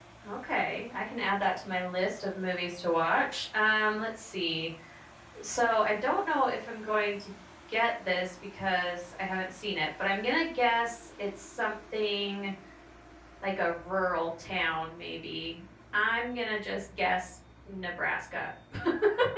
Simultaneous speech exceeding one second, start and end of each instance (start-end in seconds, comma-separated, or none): none